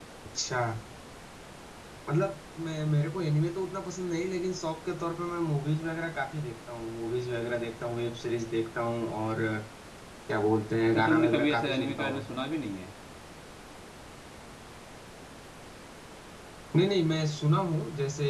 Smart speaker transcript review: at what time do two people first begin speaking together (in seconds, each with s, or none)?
10.9 s